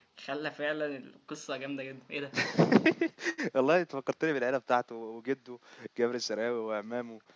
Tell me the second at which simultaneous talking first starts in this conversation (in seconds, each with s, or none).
none